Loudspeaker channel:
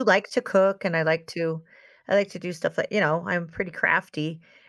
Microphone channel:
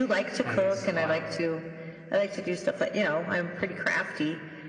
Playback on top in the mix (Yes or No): Yes